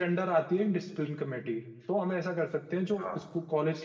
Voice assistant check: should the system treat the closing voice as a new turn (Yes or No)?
No